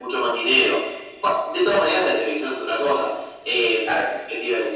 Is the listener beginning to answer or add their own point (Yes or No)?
No